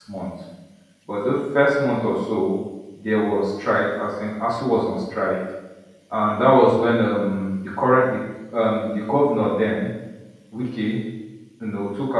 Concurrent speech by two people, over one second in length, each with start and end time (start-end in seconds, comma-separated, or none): none